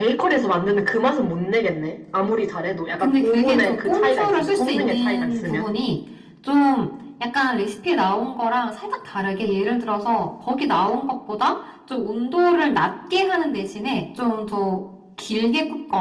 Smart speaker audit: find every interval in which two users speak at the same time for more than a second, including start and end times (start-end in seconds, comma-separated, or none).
3.0-5.7